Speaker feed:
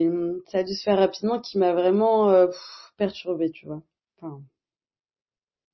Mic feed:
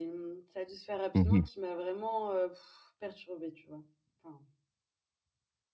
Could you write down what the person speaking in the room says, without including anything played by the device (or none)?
Mmh